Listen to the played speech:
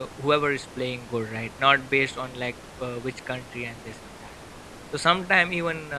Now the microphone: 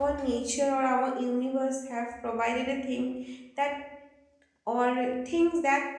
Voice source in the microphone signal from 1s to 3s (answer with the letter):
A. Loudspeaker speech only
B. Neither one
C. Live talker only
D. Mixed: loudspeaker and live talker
C